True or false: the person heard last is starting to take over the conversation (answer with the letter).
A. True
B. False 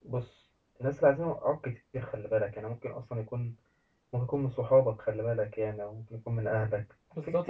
A